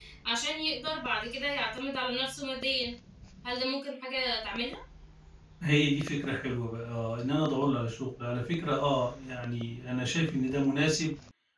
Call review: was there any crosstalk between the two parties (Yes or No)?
No